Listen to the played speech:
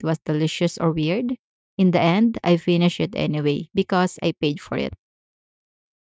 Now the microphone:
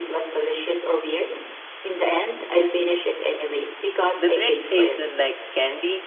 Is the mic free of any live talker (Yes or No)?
No